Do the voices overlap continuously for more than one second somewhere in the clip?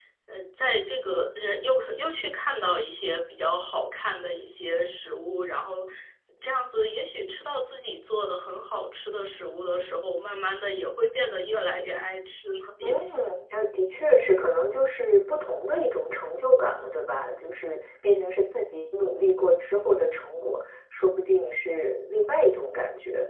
No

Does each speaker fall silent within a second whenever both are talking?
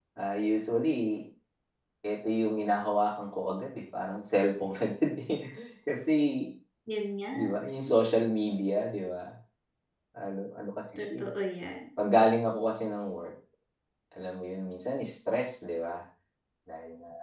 Yes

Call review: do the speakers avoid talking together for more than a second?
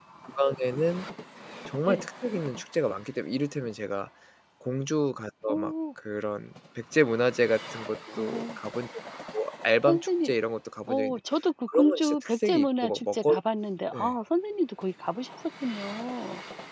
No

